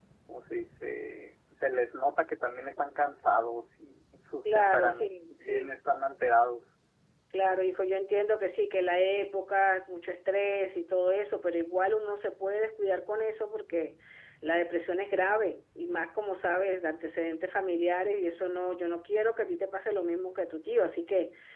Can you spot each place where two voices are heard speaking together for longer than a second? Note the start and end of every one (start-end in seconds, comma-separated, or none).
4.4-5.7